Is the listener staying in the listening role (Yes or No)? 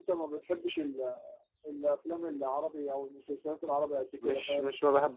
No